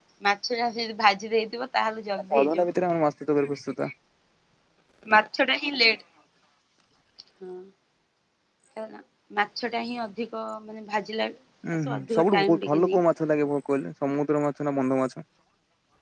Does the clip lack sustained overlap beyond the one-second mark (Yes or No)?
No